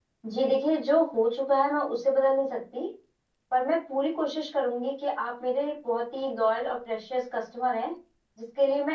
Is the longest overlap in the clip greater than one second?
No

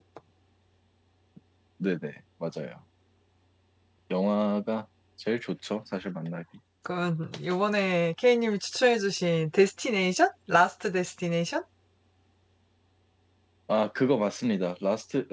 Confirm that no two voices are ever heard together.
Yes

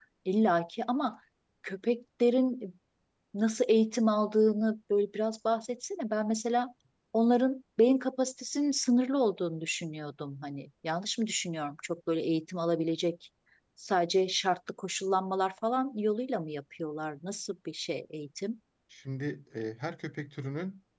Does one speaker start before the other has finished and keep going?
No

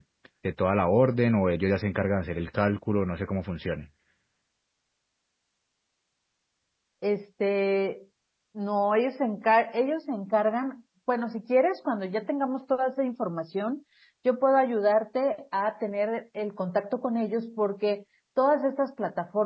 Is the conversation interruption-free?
Yes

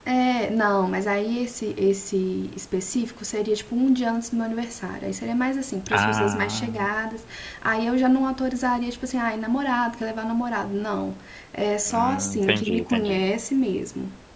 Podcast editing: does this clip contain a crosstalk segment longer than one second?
Yes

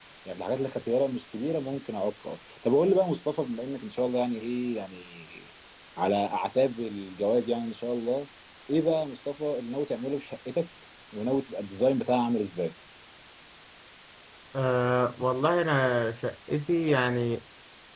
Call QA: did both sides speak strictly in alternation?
Yes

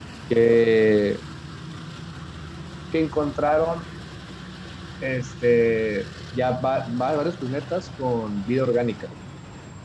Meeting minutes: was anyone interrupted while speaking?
No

